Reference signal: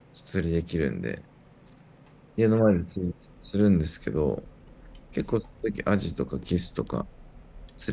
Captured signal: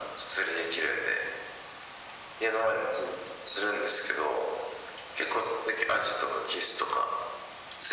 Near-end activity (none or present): none